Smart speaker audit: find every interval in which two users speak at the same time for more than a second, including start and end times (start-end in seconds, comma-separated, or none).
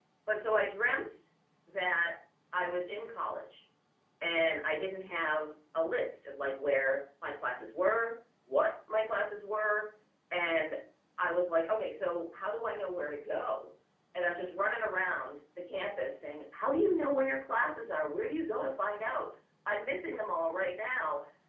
none